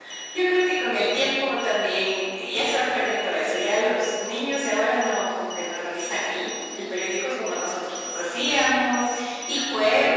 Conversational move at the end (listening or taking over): taking over